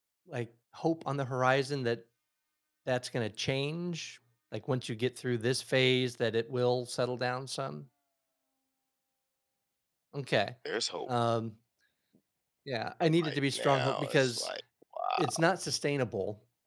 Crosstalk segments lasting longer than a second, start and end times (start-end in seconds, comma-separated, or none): 13.3-14.5